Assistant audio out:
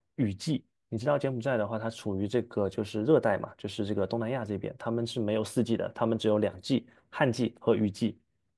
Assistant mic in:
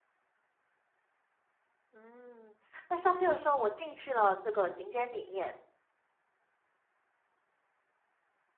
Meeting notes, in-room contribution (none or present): present